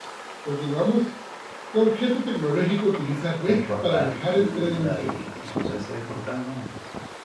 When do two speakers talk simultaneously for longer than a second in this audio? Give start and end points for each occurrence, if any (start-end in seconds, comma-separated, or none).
3.5-5.2